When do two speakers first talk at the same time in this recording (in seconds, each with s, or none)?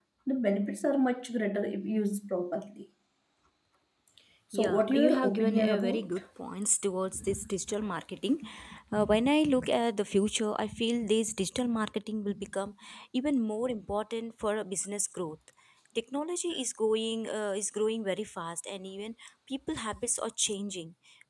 4.5 s